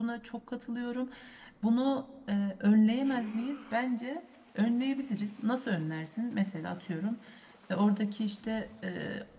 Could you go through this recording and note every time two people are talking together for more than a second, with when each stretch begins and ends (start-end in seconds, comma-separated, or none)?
none